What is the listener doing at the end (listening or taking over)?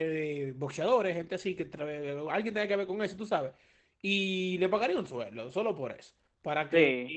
listening